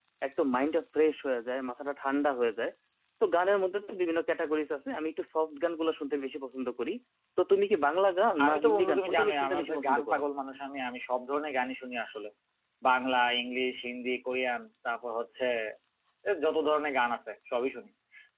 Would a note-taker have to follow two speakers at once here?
Yes, from 8.4 s

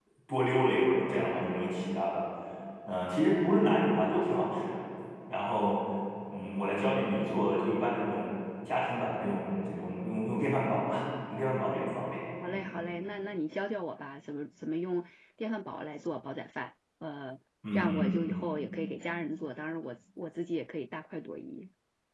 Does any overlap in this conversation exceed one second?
No

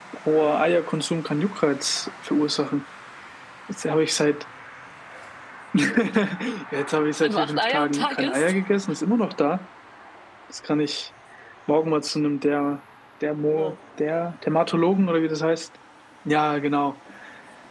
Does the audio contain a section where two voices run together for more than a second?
Yes, from 7.2 s

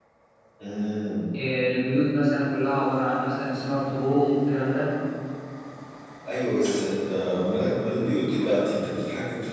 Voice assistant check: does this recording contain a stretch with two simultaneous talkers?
No

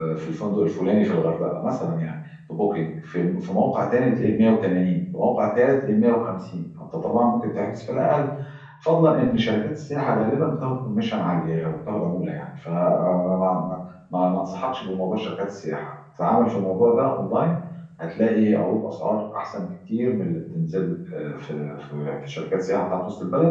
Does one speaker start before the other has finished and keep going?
No

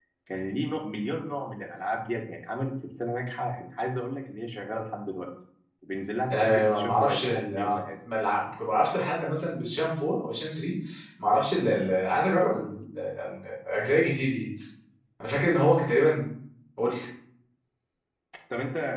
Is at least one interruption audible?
Yes, from 6.3 s

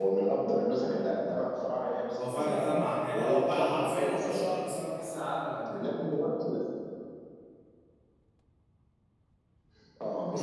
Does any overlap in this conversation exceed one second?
Yes, from 2.1 s

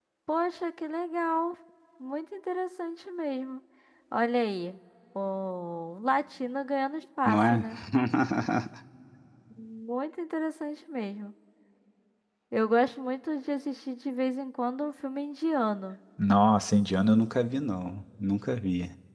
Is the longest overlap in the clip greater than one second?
No

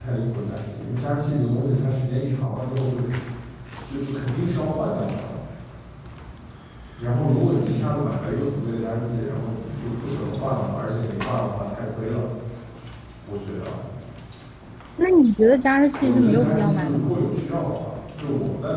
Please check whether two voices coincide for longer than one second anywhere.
Yes, from 16.0 s

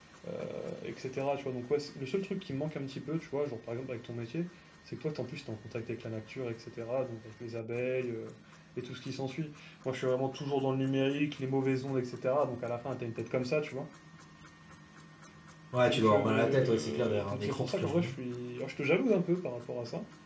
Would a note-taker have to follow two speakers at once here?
Yes, from 15.9 s

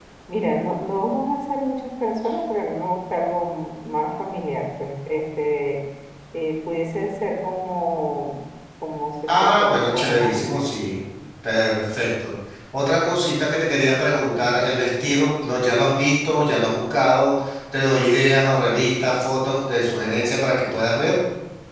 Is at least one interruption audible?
Yes, from 9.3 s

